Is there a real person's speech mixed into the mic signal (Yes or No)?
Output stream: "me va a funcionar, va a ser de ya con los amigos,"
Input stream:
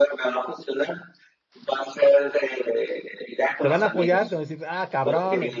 Yes